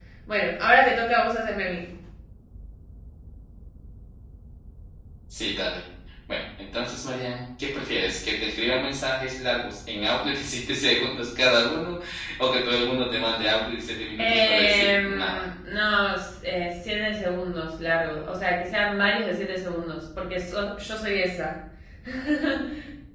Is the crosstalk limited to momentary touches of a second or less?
No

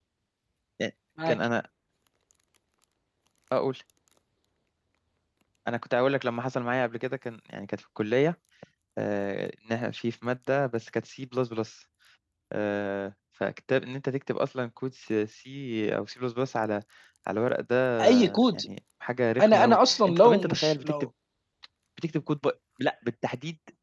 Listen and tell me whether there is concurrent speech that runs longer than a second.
Yes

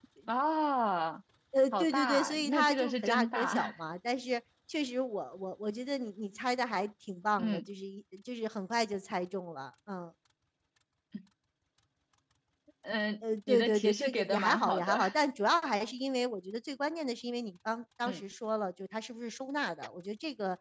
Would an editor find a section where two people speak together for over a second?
Yes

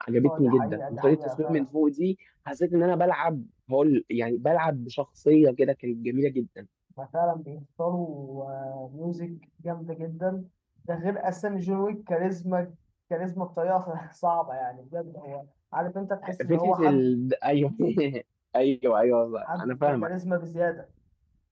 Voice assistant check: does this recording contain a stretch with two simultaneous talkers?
Yes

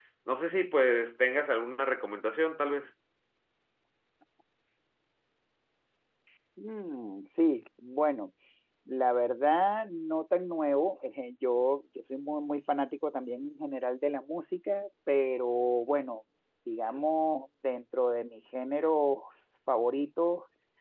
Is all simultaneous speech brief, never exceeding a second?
Yes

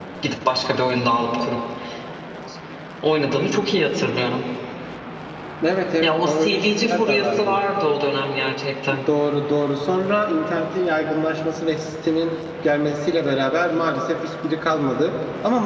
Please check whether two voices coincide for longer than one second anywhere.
Yes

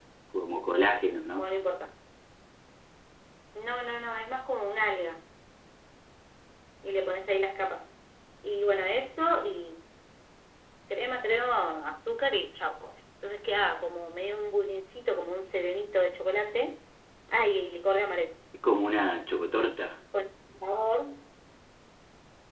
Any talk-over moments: No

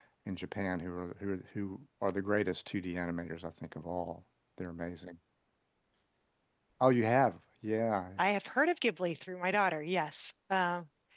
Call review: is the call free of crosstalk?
Yes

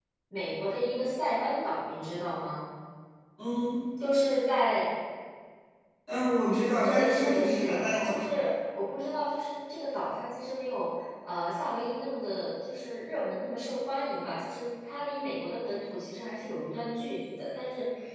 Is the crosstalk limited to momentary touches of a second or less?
No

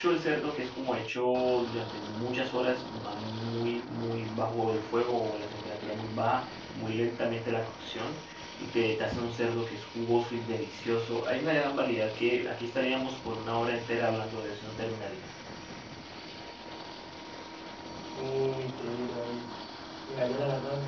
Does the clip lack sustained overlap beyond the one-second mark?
Yes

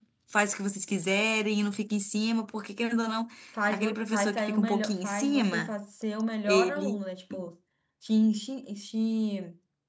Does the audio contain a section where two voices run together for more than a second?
Yes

